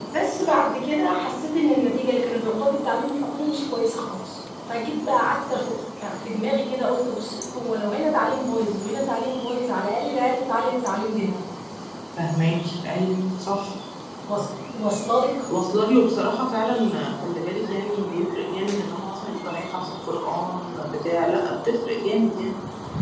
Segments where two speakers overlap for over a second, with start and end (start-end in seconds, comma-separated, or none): none